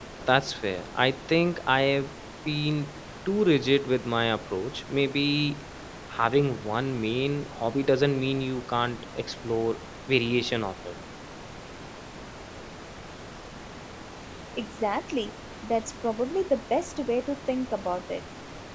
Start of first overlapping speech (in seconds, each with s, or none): none